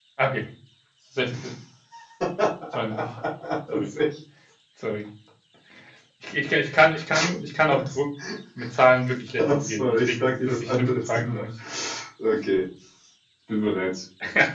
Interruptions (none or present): present